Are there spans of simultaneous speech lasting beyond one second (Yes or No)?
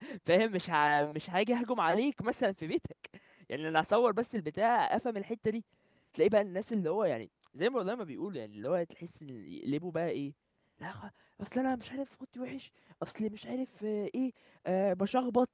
No